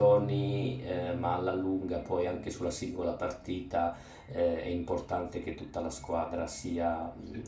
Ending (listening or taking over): listening